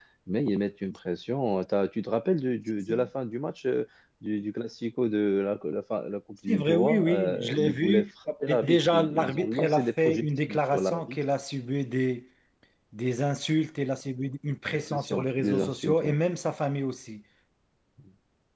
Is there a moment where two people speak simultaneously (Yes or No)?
Yes